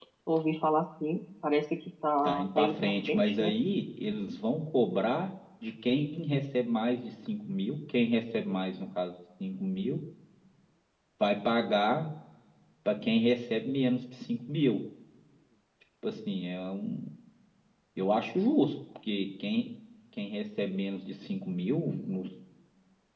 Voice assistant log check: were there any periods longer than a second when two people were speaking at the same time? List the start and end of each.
2.2-3.5

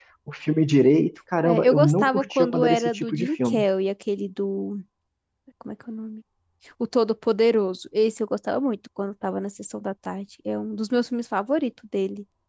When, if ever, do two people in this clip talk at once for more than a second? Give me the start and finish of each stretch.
1.4-3.6

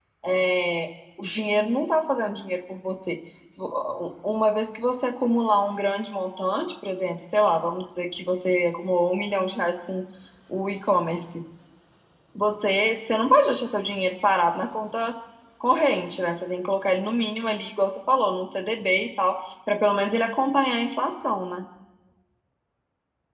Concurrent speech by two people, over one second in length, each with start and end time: none

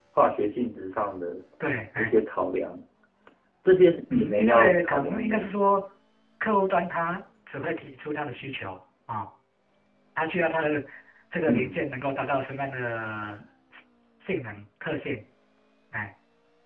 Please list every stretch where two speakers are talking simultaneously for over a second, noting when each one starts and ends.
4.1-5.5

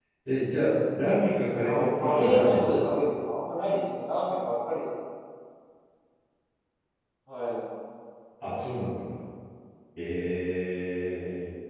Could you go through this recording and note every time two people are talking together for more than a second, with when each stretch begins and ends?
1.6-2.9

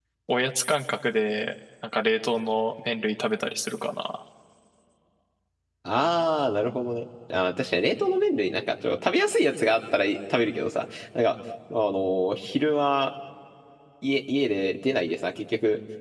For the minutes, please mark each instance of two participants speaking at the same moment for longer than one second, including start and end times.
none

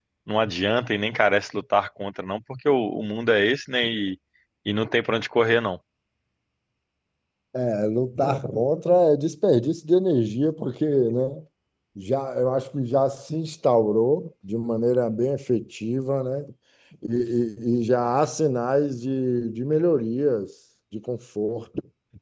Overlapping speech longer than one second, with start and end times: none

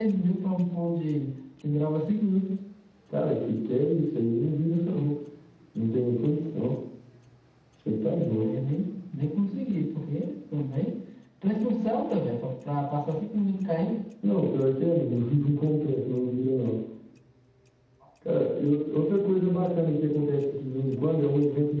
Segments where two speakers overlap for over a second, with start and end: none

